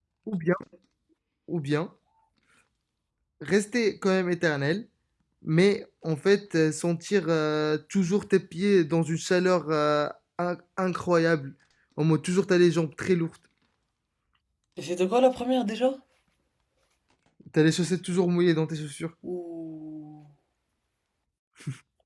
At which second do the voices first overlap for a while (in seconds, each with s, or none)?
none